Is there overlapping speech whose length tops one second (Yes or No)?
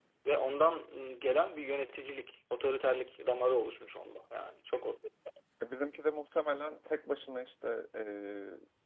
No